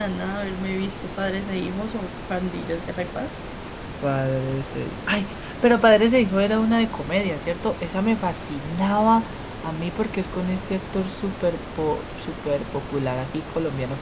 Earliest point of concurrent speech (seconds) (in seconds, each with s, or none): none